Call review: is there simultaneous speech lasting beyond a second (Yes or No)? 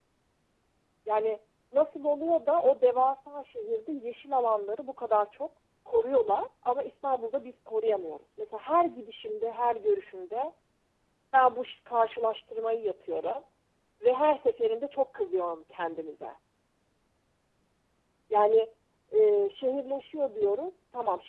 No